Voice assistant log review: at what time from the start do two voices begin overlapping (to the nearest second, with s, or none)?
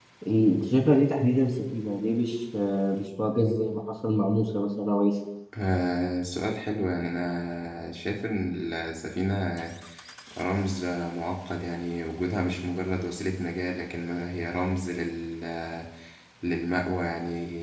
none